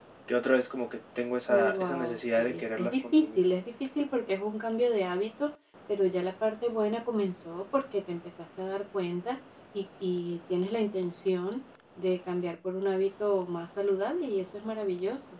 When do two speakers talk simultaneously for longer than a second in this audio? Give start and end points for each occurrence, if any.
1.5-3.4

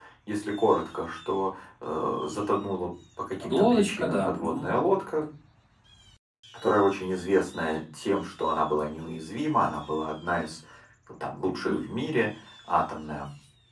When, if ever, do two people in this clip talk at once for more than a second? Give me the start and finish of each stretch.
3.4-4.7

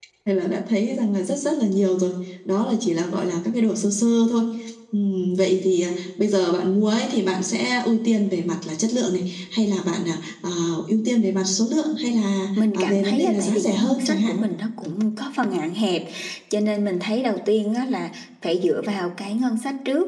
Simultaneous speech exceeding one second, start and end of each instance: 12.7-14.3

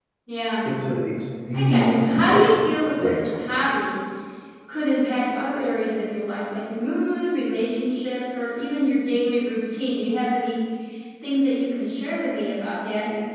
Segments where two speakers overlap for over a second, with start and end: 1.5-3.7

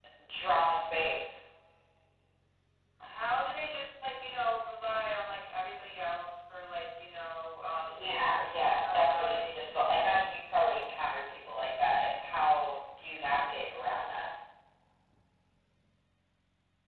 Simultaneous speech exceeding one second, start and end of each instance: 7.9-9.8

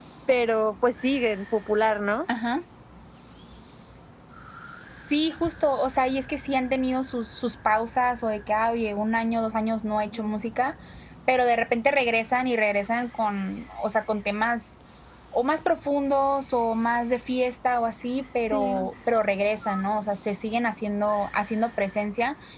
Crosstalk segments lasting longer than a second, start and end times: none

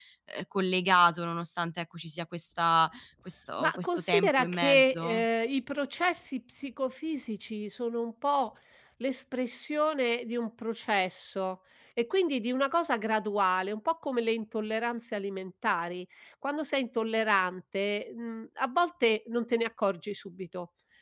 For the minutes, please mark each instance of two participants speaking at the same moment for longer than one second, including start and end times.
3.6-5.2

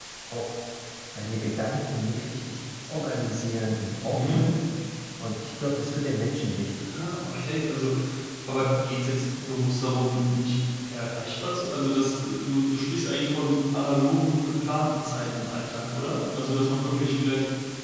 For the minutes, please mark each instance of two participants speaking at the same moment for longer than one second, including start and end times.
none

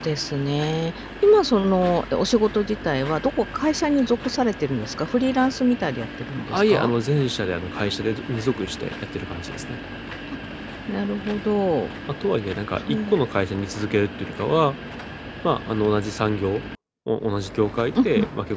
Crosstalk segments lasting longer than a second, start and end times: none

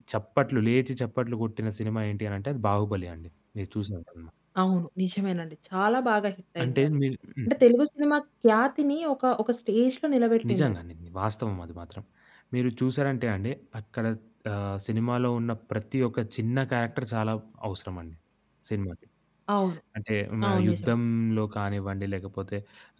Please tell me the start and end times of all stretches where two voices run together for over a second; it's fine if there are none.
none

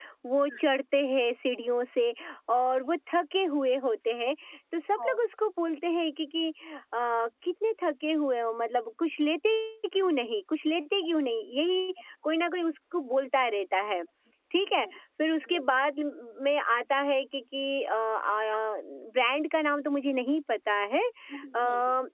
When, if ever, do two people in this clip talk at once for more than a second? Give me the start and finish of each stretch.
none

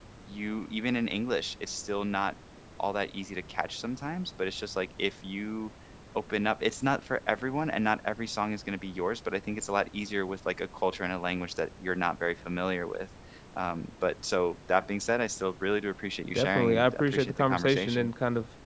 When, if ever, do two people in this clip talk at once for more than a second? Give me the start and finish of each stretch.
16.3-18.1

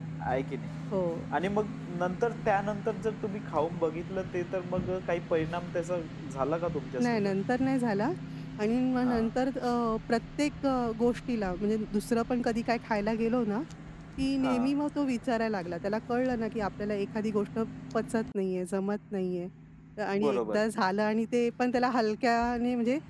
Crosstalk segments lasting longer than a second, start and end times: none

